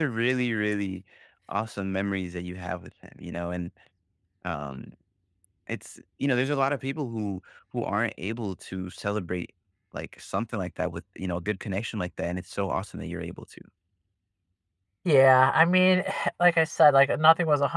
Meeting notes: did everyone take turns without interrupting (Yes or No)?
Yes